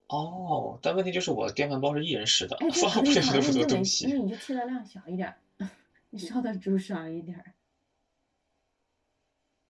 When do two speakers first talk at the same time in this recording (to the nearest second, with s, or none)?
3 s